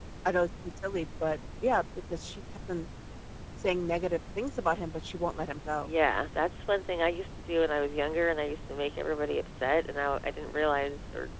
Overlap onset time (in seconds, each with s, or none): none